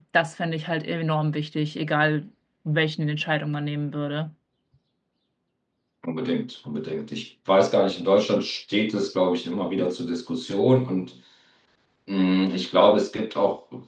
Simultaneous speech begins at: none

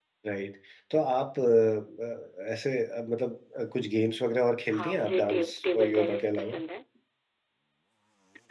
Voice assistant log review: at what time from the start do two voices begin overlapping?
4.7 s

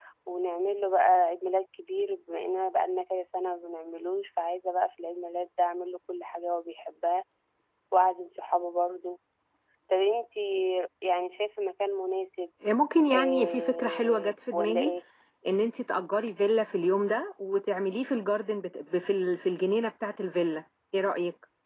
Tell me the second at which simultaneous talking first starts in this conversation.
13.1 s

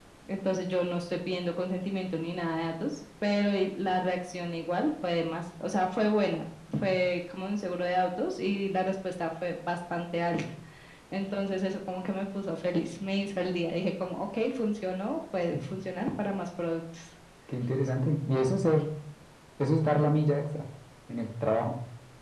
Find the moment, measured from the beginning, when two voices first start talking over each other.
none

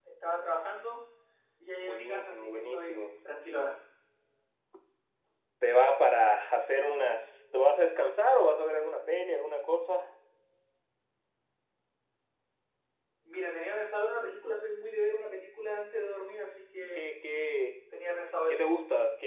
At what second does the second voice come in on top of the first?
1.8 s

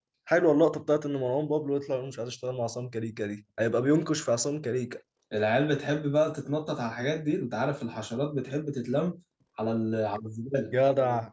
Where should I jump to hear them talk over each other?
none

